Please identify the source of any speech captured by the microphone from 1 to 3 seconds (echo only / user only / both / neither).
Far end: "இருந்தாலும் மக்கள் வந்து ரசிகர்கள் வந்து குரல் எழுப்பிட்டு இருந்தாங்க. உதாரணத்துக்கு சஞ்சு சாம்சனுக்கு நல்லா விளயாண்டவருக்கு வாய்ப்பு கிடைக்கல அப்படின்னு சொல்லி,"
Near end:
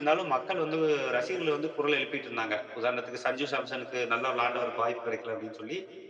echo only